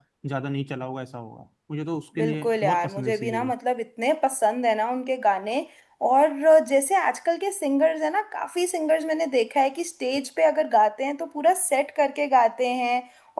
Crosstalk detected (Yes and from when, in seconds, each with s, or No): Yes, from 2.2 s